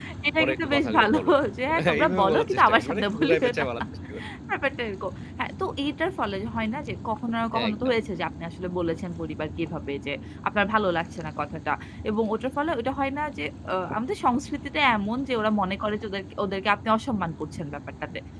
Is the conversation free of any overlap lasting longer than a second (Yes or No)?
No